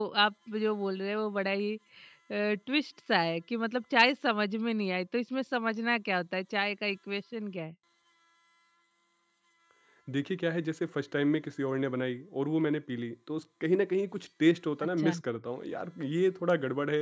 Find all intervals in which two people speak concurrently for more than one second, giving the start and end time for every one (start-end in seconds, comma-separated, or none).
none